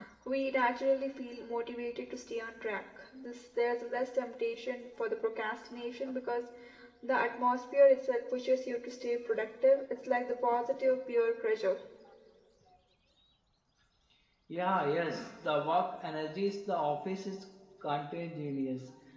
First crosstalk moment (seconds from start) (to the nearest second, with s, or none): none